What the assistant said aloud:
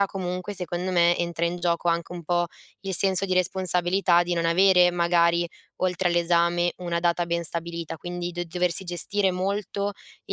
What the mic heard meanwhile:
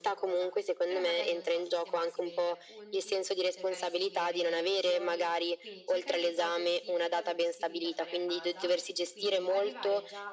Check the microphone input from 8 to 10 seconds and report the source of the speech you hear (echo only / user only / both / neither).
both